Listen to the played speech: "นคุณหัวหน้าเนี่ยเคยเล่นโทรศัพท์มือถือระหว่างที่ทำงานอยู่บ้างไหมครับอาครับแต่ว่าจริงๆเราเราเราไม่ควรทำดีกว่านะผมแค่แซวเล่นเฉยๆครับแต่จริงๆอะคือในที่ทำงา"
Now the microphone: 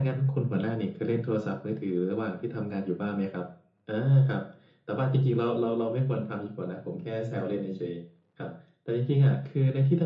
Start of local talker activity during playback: none

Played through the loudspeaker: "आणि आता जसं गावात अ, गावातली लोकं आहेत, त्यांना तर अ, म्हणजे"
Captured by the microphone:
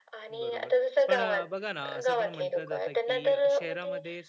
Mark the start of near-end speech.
0.4 s

